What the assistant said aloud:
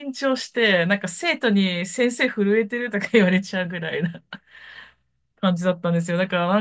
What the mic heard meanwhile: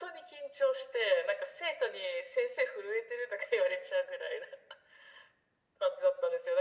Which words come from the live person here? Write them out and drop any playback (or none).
none